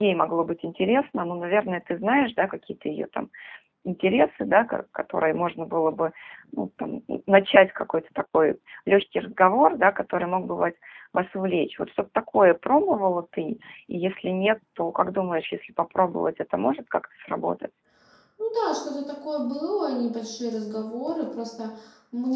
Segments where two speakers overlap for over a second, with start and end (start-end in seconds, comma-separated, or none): none